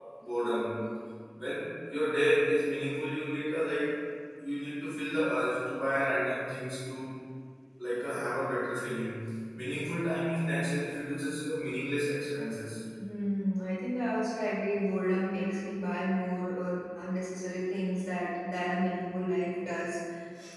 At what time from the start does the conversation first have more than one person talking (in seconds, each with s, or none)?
none